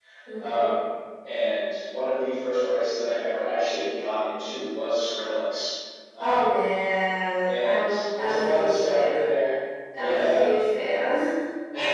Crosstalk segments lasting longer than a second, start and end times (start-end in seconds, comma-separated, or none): 7.4-9.3